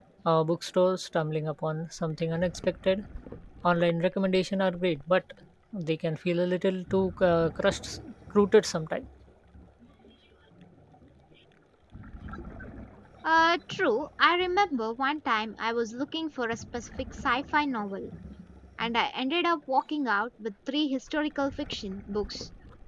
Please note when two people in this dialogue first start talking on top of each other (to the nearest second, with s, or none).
none